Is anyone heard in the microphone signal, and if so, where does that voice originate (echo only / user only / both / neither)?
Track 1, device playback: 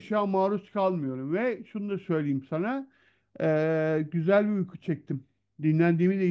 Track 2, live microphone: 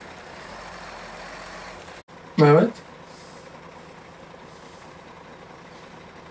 user only